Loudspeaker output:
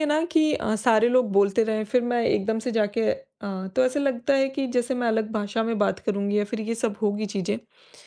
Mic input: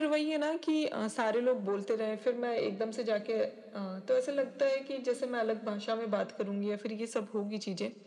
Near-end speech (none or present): none